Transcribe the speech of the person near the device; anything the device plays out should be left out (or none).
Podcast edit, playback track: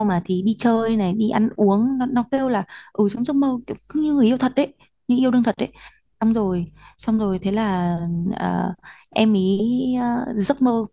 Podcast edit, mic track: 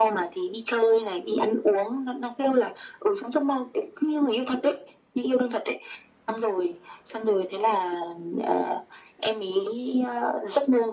none